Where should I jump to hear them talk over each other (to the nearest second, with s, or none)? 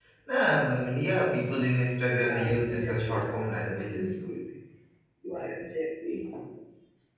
2 s